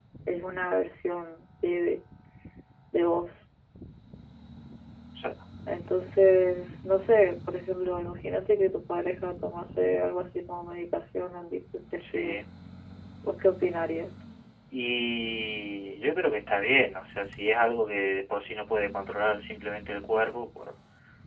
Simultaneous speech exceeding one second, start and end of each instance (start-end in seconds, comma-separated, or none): none